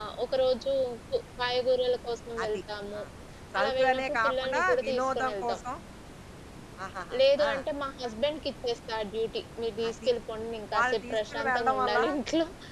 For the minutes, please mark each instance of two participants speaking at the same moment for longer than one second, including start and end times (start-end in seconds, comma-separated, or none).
3.6-5.6, 10.8-12.0